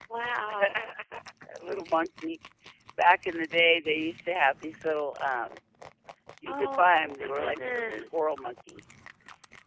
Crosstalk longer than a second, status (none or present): present